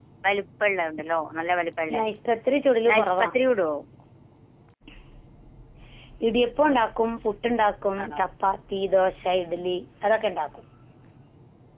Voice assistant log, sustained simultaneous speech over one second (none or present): none